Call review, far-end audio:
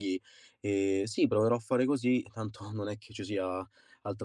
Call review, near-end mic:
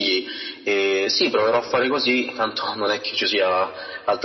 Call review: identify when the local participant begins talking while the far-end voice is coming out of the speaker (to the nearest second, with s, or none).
none